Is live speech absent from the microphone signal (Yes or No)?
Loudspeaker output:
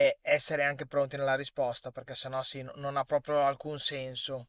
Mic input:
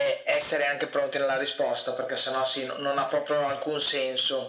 Yes